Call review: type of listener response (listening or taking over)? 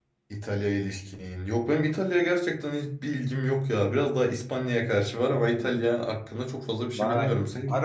taking over